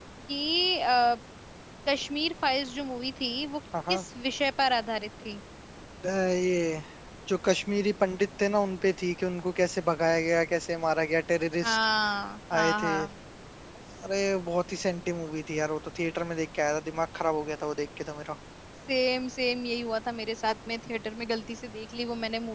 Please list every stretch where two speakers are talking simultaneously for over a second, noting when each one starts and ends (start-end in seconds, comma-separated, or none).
none